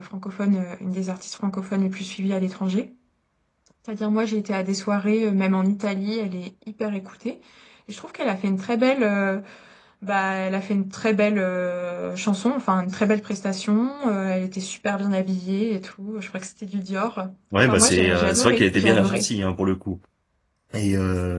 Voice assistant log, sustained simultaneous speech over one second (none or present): present